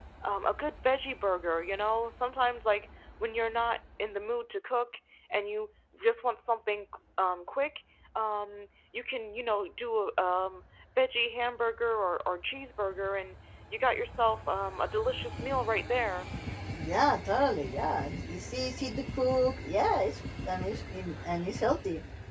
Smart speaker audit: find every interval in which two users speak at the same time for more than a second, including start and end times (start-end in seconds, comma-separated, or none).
none